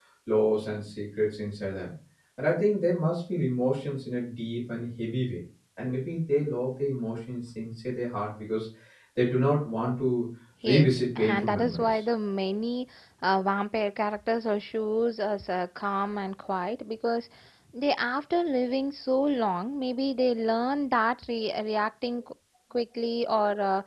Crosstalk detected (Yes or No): Yes